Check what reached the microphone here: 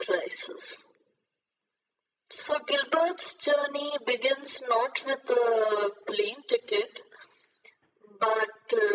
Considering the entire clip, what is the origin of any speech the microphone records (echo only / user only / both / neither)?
echo only